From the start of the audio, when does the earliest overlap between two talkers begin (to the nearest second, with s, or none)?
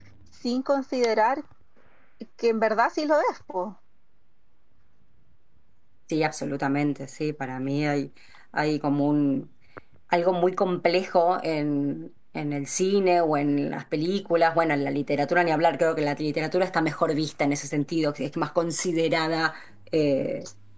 none